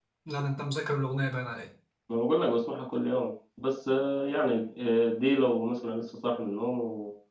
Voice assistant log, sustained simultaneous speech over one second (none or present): none